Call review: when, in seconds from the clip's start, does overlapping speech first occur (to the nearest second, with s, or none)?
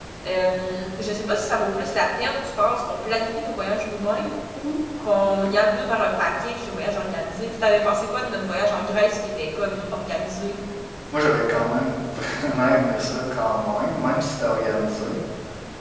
none